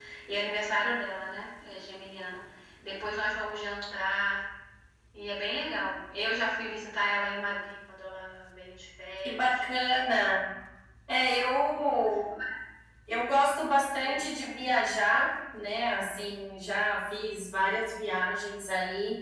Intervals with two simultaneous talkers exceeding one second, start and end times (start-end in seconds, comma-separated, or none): none